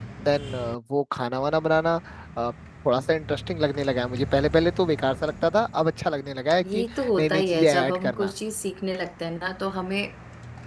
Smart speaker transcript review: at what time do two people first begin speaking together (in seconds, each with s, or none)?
6.6 s